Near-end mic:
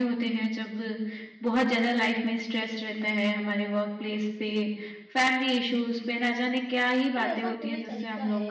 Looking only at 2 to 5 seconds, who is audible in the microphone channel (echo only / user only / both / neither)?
echo only